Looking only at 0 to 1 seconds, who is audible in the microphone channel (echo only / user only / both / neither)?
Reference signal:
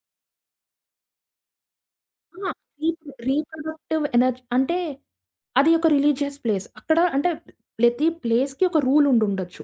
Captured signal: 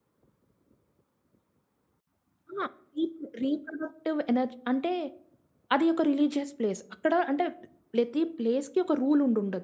neither